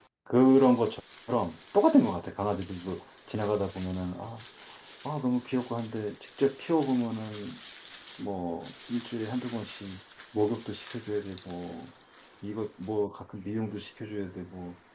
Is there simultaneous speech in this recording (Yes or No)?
No